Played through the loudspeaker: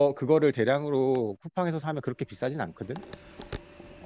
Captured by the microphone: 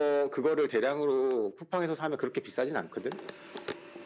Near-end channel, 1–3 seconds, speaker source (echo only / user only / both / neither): echo only